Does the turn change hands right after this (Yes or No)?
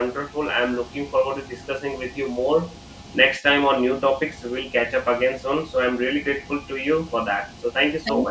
Yes